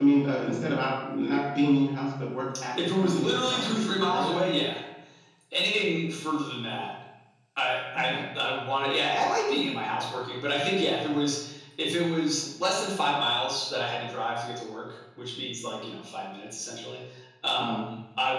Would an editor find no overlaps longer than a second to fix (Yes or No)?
No